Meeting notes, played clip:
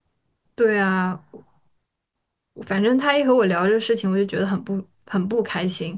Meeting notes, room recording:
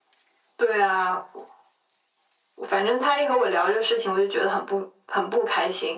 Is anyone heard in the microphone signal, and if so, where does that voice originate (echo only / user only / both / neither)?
echo only